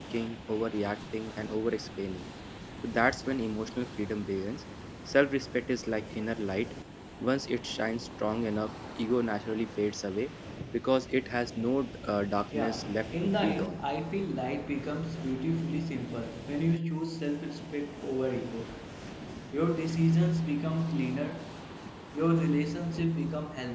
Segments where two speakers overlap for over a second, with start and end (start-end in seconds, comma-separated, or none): 12.5-13.8